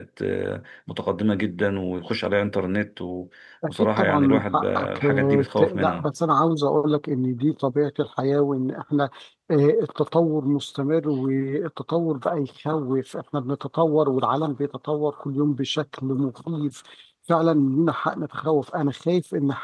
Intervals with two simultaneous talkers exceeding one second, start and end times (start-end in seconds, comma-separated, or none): 3.7-6.1